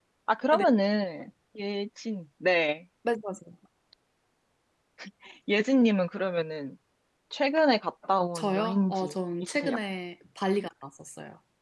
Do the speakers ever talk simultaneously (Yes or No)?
Yes